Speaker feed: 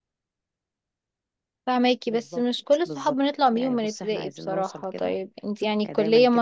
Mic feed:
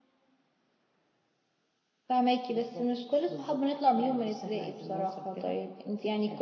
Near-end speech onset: none

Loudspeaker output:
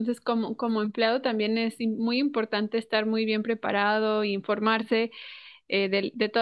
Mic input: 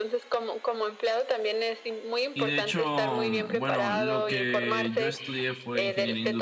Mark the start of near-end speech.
2.3 s

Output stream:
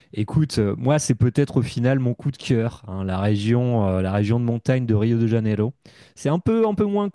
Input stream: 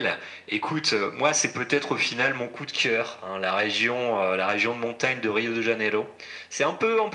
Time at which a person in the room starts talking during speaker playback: none

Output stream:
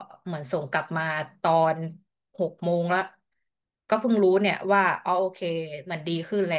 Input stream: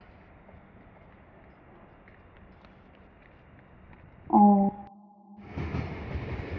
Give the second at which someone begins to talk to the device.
4.3 s

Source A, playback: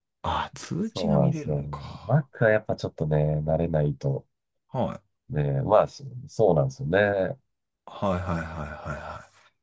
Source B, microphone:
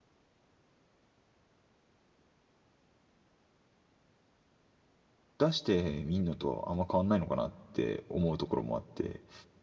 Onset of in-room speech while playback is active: 5.4 s

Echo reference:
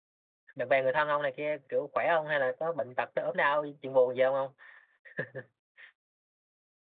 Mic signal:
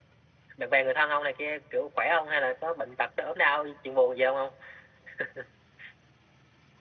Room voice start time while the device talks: none

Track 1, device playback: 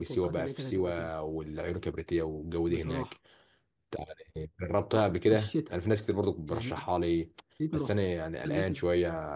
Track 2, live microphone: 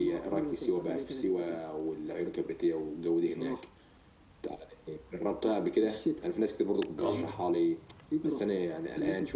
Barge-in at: 7.0 s

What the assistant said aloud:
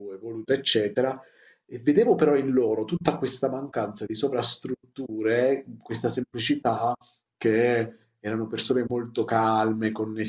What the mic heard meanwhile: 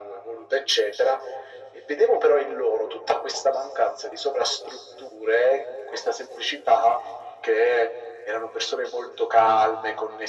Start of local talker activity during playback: none

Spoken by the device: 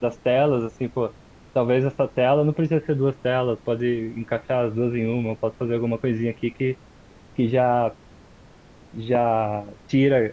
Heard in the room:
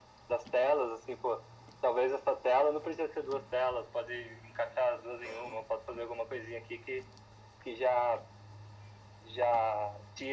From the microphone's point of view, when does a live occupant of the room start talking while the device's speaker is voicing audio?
none

